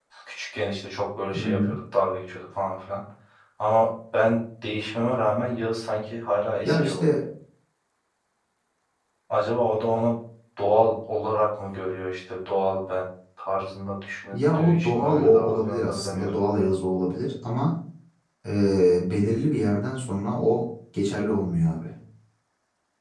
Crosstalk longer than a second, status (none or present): present